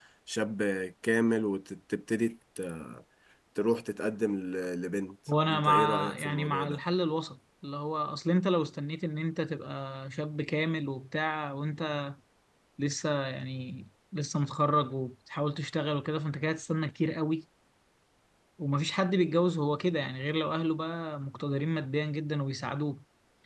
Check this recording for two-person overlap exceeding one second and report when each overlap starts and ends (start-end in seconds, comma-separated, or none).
5.5-6.8